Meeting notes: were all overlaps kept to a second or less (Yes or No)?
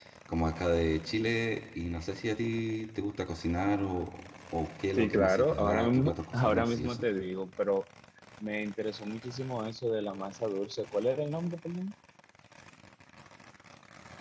No